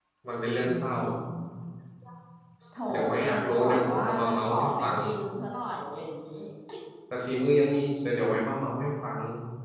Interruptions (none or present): present